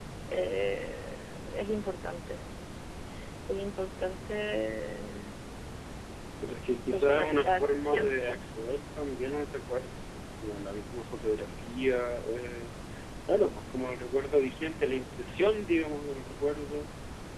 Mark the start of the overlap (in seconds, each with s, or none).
6.8 s